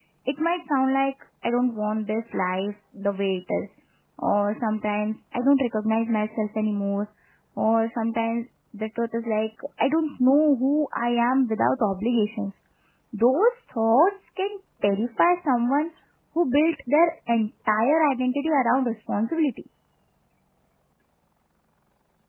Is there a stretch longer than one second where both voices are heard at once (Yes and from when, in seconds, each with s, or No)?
No